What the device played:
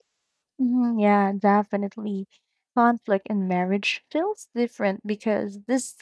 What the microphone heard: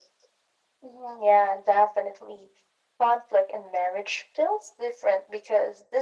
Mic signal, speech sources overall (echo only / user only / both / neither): echo only